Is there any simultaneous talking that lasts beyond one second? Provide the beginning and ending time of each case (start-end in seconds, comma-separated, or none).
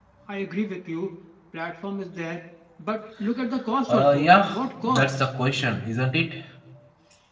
3.9-5.3